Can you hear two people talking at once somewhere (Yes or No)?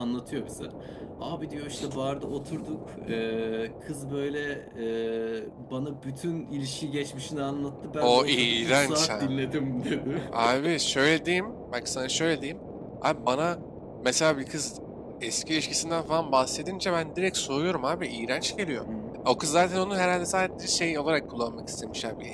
Yes